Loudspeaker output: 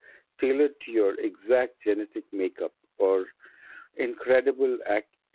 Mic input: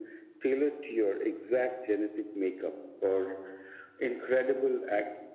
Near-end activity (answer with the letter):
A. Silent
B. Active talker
A